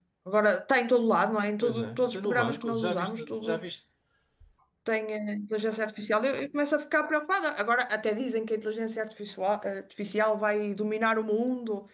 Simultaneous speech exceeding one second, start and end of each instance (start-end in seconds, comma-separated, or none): 1.6-3.6